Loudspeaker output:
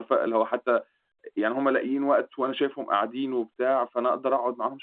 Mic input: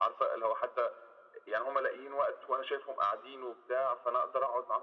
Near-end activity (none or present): none